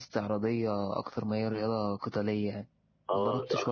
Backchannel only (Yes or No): No